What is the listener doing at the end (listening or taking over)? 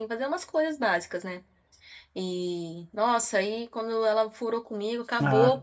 listening